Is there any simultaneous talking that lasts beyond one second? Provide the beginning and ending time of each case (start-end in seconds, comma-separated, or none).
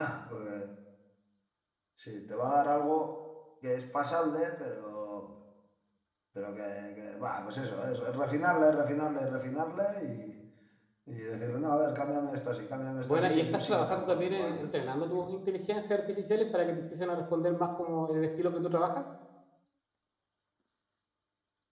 13.0-14.7